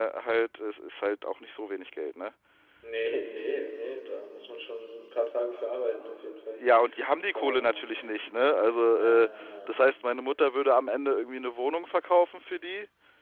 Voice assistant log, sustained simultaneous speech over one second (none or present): none